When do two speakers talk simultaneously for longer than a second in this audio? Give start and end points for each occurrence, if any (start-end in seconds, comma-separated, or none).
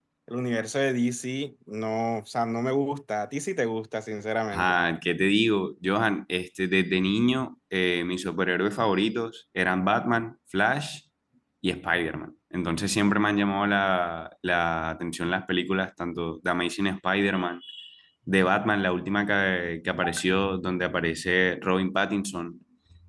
none